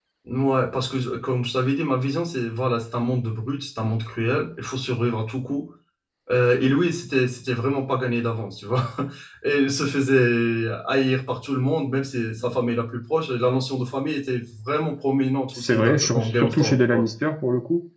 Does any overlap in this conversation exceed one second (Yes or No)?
Yes